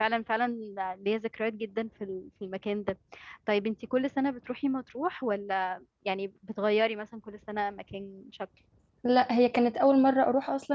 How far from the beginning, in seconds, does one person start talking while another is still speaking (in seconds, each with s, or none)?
none